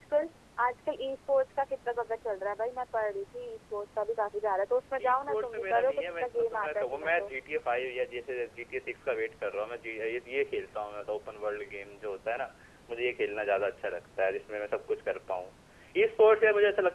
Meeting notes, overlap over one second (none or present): present